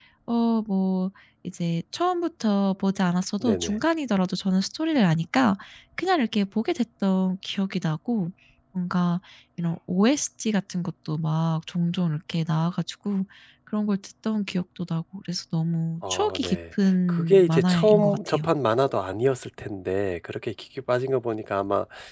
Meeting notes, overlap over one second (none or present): present